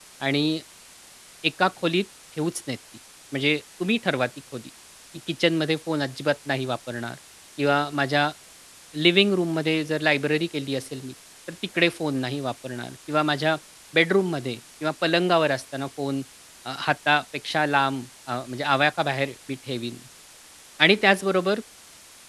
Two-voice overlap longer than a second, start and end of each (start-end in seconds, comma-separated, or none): none